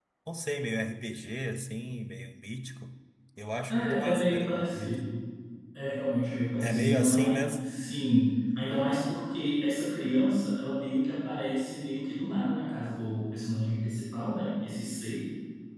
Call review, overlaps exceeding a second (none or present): present